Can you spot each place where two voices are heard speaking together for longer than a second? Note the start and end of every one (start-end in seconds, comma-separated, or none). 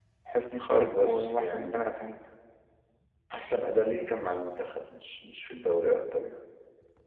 0.6-1.8